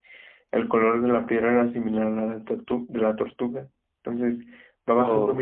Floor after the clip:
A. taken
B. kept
B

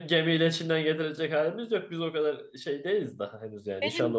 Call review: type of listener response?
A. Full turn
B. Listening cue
A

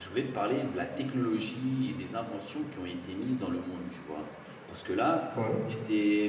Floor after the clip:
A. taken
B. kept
B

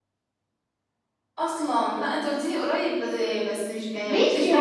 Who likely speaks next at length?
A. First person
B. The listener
B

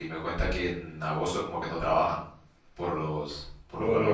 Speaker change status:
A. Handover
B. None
A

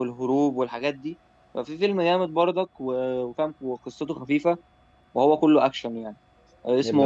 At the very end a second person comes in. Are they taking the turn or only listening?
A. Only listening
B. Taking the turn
A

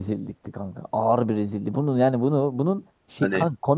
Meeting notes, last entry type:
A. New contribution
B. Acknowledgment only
B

